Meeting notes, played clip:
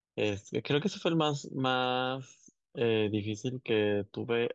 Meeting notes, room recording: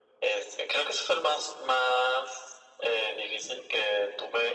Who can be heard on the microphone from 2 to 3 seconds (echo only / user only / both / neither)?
echo only